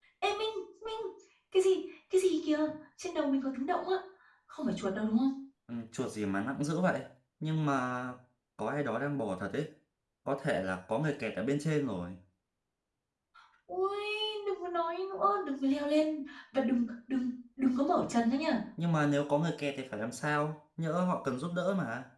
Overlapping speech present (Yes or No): No